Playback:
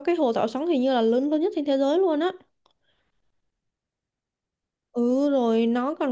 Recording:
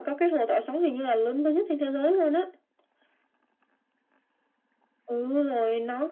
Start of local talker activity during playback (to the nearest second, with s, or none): none